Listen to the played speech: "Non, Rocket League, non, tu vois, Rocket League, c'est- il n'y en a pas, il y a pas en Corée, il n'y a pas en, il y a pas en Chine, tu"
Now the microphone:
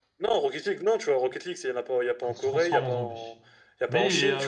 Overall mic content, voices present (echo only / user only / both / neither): both